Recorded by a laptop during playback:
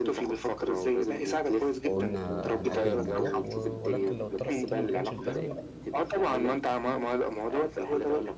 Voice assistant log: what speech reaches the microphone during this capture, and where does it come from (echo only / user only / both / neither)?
both